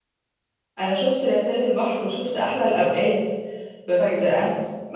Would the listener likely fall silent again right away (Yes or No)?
Yes